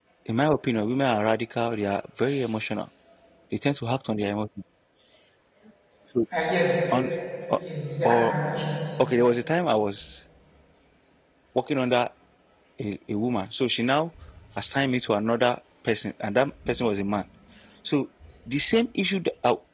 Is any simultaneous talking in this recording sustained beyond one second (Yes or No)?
No